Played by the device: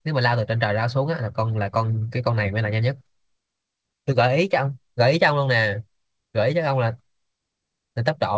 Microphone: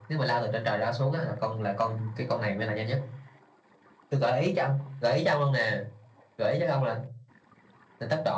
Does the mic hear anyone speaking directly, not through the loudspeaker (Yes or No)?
No